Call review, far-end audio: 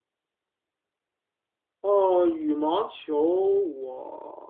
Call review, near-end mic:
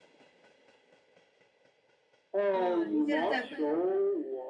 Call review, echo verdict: present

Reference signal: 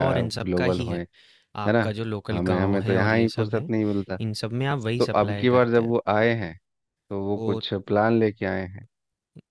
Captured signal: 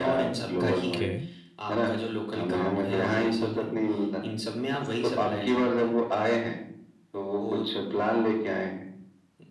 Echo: present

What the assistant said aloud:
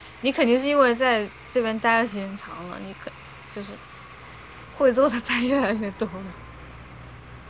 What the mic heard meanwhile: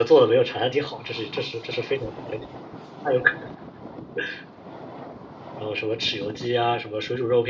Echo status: none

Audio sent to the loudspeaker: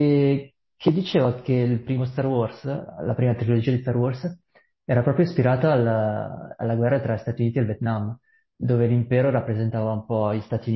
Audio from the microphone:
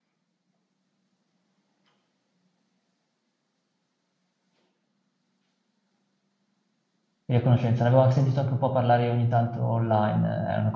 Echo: none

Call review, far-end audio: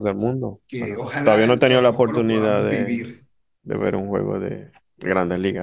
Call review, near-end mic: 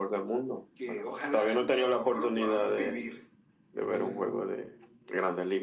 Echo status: present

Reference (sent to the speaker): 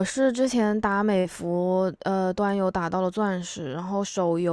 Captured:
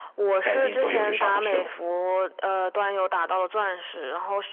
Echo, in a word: present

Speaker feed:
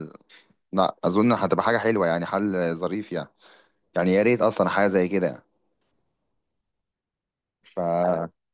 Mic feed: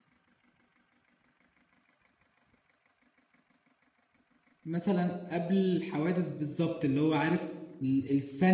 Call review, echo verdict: none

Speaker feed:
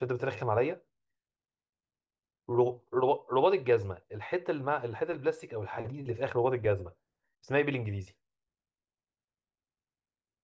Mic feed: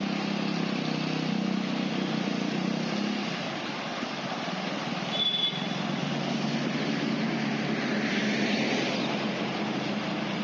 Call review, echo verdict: none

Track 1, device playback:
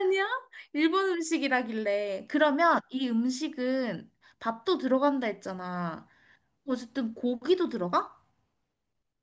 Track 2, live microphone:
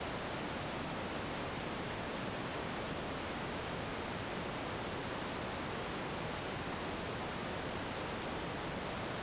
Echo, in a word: none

